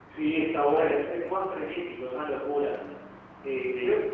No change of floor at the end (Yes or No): Yes